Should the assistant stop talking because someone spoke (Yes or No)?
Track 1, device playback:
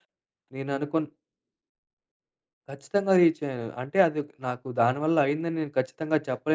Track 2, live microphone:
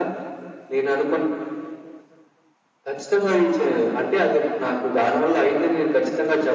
No